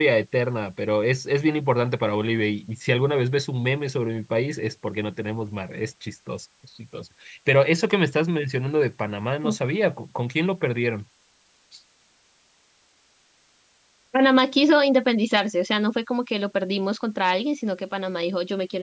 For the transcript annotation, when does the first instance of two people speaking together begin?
none

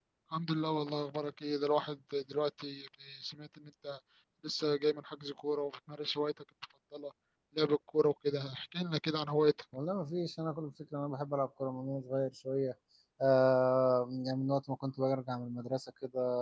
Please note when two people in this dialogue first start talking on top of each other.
none

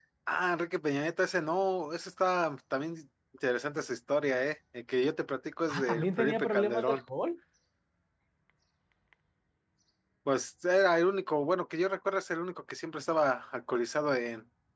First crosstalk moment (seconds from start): 5.7 s

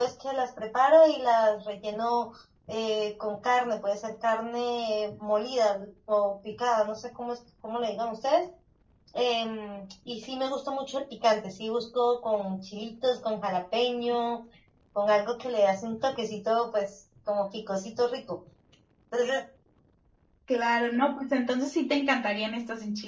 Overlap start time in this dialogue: none

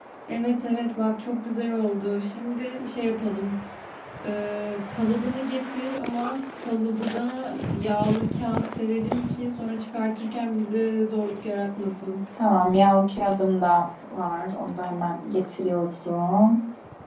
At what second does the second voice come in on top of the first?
none

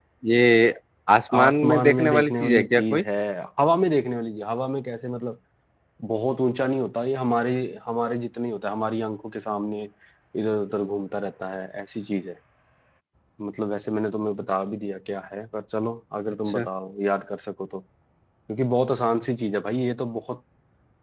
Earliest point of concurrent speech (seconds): 1.4 s

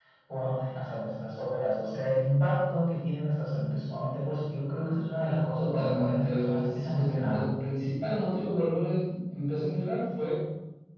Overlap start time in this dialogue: 5.5 s

